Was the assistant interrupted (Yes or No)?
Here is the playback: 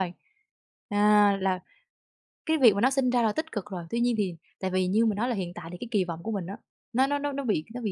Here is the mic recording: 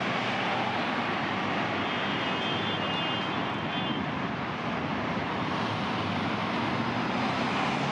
No